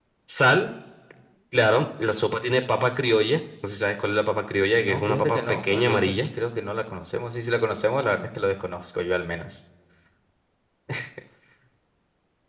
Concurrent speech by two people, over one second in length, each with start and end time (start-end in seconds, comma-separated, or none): 4.8-6.3